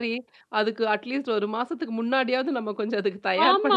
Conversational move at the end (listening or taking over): taking over